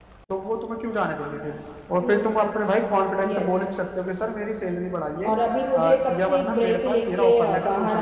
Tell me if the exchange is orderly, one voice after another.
No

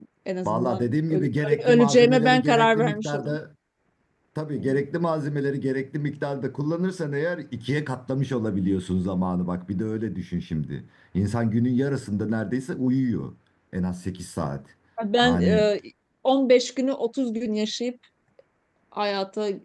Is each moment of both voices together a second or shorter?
No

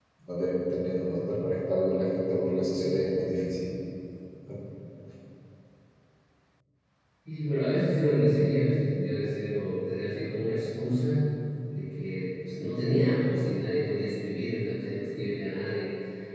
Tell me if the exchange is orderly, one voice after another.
Yes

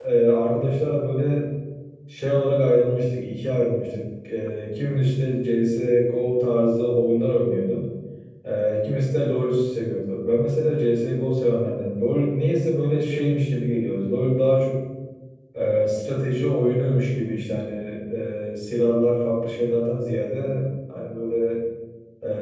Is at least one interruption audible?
No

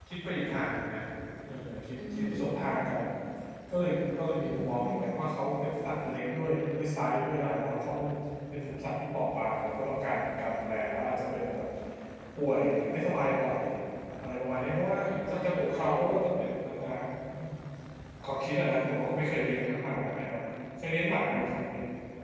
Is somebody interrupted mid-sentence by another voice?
Yes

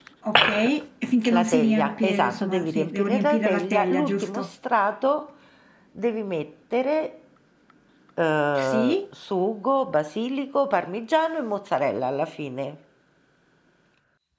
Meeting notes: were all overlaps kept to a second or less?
No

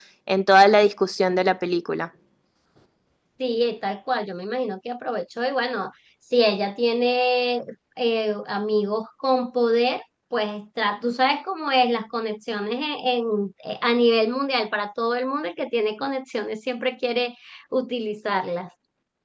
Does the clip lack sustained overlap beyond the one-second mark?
Yes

